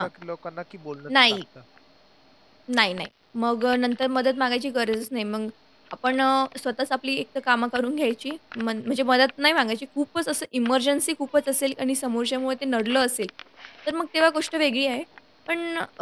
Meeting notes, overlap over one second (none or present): none